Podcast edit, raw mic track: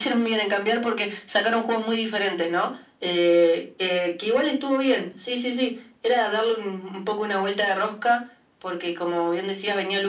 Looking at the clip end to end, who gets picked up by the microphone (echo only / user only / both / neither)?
echo only